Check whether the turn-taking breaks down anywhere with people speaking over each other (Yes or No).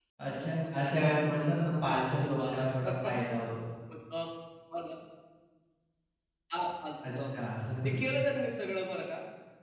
Yes